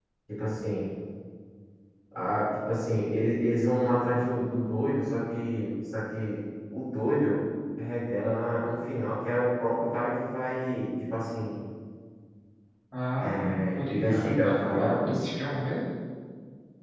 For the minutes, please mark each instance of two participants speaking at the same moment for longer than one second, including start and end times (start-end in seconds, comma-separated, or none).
13.2-15.1